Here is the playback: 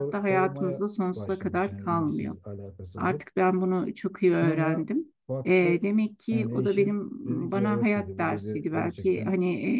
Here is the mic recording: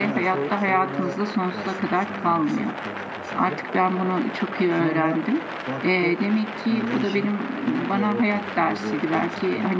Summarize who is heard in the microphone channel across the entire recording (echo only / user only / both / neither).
echo only